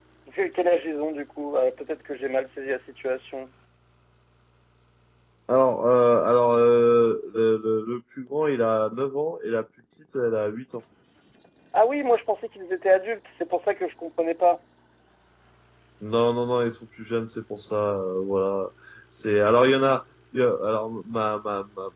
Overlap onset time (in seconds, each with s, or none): none